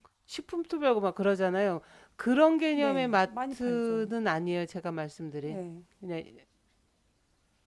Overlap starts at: 3 s

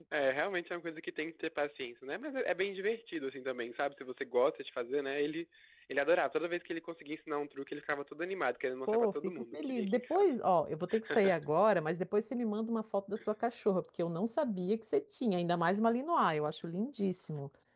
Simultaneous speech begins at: 9 s

